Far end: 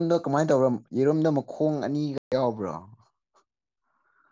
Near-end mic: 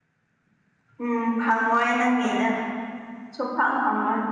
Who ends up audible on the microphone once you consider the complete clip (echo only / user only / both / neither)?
user only